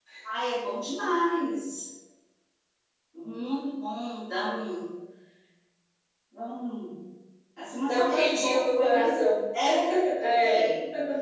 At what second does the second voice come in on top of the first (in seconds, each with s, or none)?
7.8 s